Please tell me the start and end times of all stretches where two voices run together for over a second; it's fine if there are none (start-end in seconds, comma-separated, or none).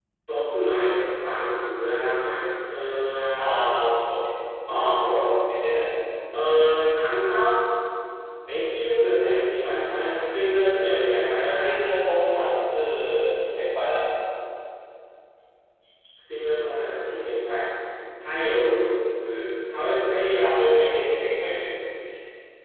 none